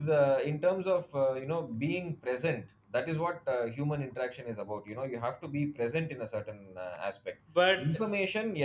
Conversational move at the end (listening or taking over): listening